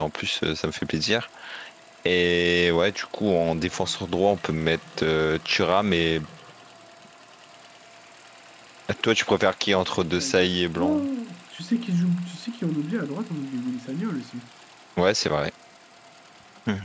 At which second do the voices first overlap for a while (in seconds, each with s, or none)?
9.7 s